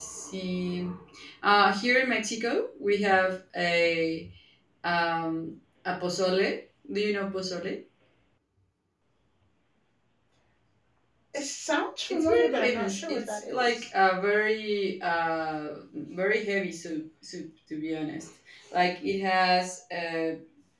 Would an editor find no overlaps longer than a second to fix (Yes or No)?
No